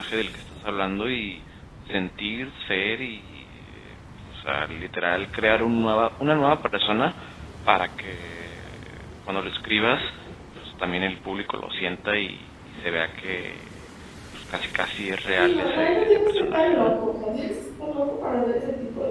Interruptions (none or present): present